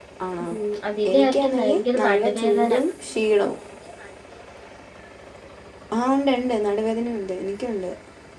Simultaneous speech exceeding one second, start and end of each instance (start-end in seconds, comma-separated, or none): 1.1-2.7